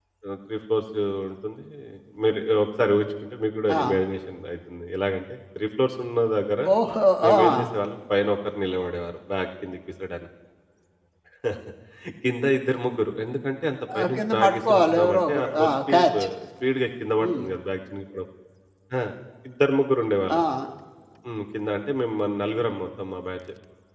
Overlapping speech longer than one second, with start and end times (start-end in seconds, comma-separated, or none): 14.0-16.1